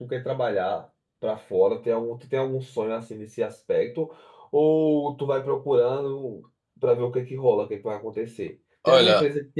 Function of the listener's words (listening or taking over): listening